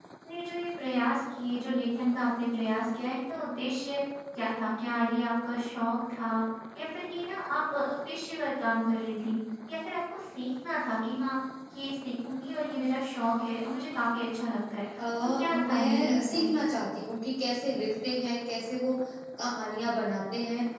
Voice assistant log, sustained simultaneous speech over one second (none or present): present